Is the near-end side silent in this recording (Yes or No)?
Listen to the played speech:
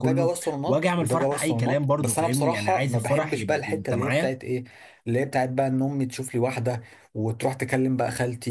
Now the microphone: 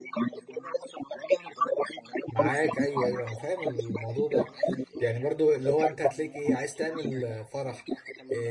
No